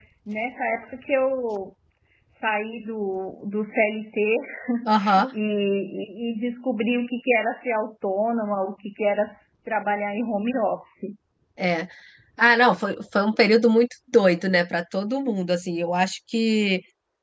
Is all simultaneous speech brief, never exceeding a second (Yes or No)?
Yes